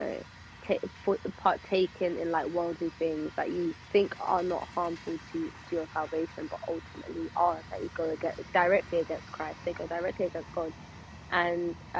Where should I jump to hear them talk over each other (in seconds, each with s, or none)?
none